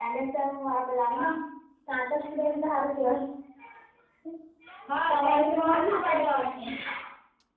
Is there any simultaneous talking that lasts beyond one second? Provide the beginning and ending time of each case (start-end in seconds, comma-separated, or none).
5.1-6.7